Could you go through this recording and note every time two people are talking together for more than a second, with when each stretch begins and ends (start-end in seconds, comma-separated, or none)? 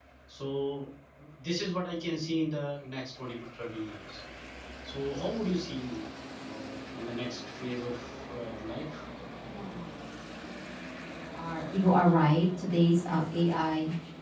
none